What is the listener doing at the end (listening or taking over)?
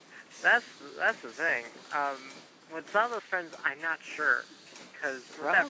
listening